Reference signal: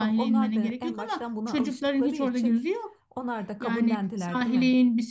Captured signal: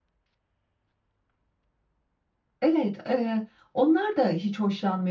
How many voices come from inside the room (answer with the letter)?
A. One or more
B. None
A